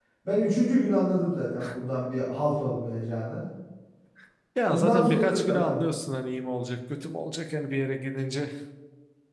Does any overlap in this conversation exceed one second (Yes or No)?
Yes